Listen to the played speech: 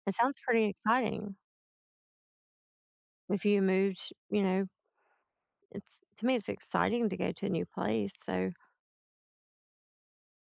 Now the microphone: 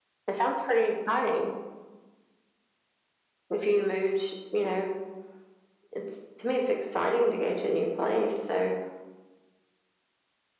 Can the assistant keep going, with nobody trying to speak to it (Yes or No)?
Yes